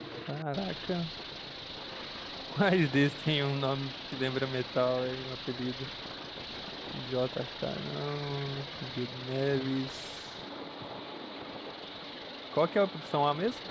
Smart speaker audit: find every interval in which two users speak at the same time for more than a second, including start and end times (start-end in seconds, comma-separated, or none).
none